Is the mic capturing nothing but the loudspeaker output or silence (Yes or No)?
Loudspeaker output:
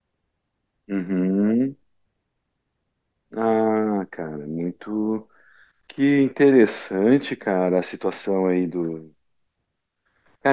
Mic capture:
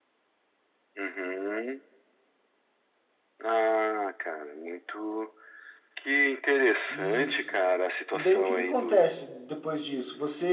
No